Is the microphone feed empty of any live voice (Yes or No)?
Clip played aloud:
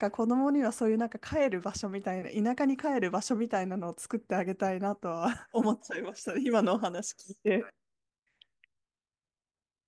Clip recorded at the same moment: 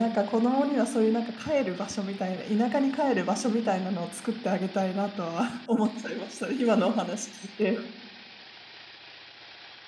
Yes